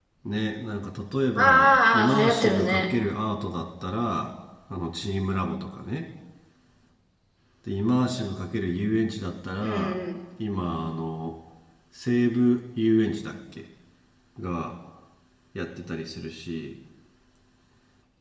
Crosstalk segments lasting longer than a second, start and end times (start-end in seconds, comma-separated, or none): 1.4-2.6